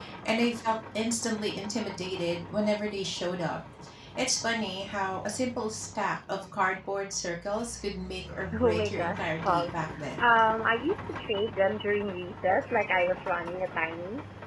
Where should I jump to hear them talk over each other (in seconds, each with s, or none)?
8.5 s